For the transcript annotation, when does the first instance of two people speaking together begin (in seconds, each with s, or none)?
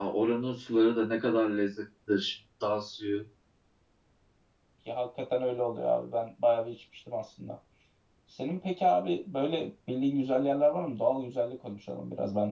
none